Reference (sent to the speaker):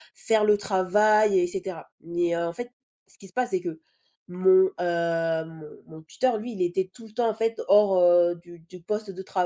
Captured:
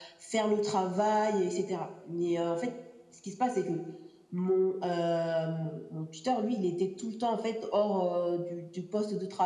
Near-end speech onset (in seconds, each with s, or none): none